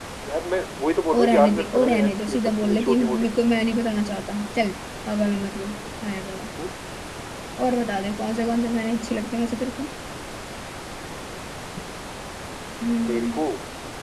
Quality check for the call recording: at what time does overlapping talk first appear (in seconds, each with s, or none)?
1.1 s